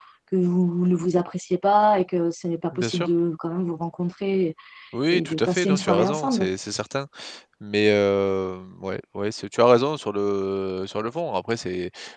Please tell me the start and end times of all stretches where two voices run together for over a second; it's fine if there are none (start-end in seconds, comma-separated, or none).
5.1-6.5